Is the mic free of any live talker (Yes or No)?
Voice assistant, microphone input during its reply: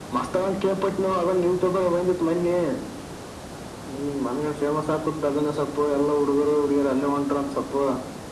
Yes